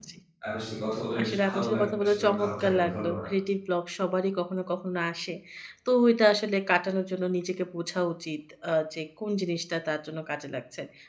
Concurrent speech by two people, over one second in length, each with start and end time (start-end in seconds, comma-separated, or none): 1.2-3.3